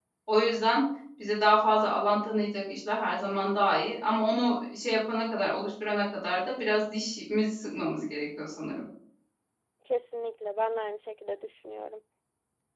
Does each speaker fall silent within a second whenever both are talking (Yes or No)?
Yes